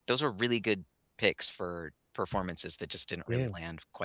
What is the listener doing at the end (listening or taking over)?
listening